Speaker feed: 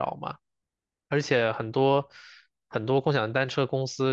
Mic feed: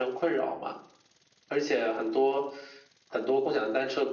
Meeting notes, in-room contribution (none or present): none